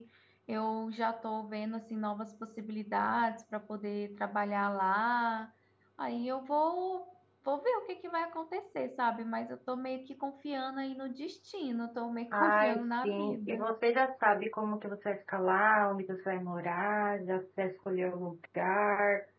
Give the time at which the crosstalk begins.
12.3 s

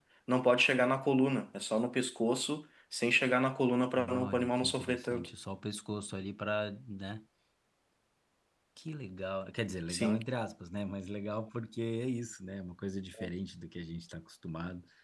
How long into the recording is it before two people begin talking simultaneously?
4.1 s

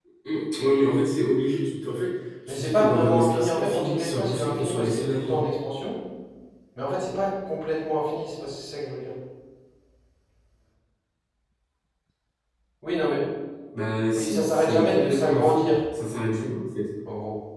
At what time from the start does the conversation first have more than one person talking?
2.5 s

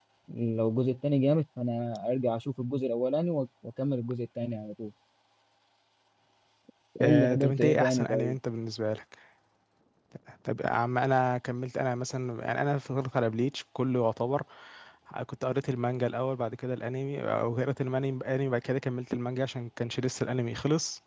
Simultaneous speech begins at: 7.0 s

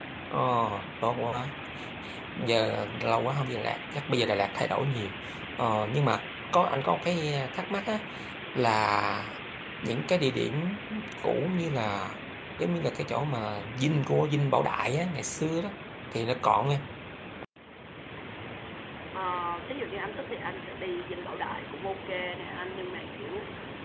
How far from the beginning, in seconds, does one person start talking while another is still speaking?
none

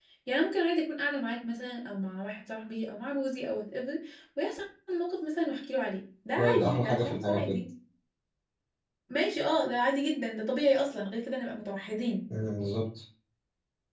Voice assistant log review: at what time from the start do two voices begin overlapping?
6.4 s

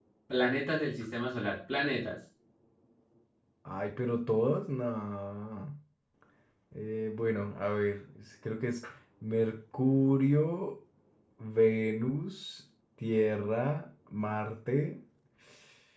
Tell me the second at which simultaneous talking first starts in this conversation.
none

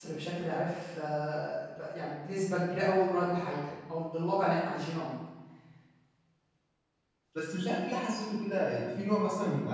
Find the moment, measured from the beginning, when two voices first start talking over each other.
none

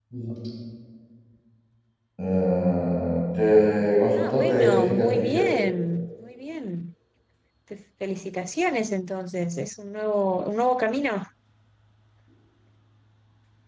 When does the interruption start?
4.2 s

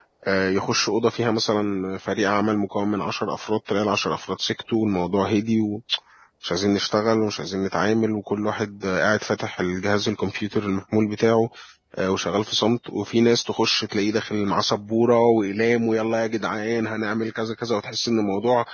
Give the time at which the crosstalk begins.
none

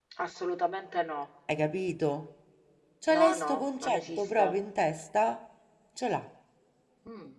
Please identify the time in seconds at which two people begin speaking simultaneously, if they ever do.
3.1 s

